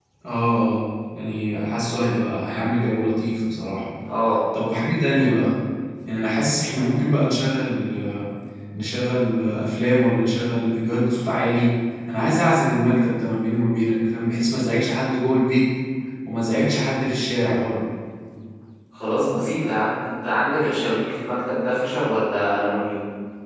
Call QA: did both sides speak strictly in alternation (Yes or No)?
Yes